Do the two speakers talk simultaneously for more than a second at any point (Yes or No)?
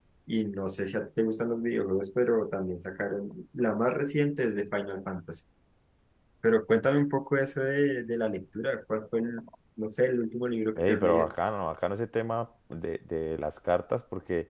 No